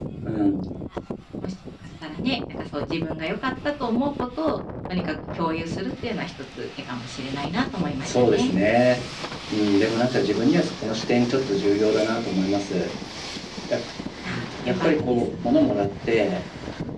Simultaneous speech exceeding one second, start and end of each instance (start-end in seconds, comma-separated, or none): 14.3-15.5